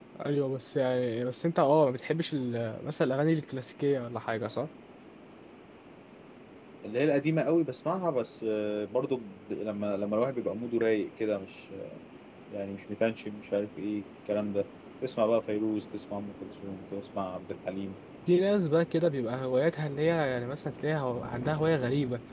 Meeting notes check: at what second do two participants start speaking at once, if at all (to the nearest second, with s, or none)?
none